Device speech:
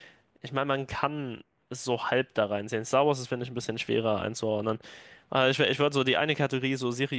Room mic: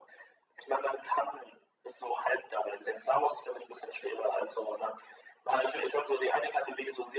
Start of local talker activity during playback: none

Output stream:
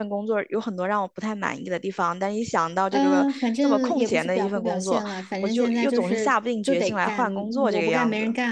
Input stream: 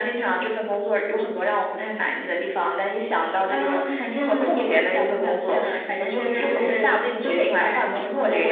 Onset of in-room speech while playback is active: none

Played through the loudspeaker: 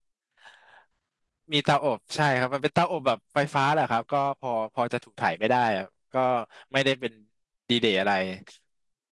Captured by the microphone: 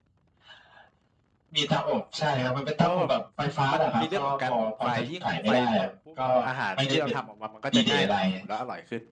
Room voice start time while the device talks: 3 s

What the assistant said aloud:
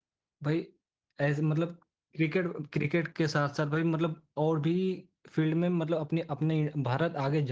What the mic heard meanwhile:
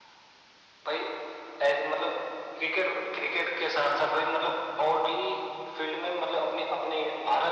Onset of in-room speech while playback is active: none

